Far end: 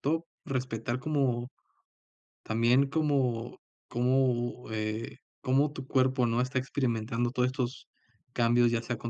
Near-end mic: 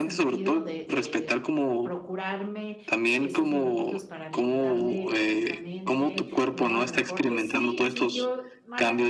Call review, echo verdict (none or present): present